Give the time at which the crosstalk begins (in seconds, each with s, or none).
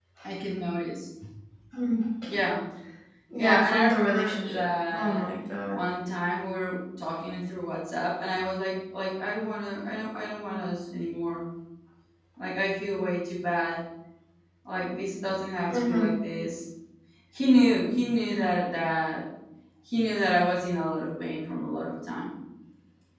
3.4 s